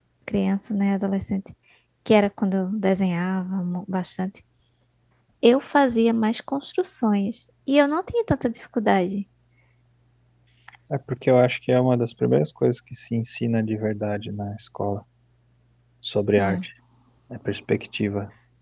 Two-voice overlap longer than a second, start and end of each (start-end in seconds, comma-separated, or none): none